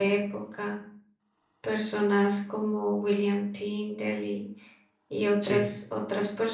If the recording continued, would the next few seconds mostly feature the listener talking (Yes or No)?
No